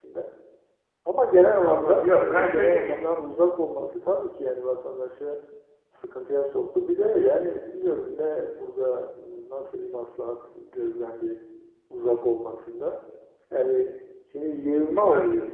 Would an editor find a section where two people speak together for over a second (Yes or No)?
Yes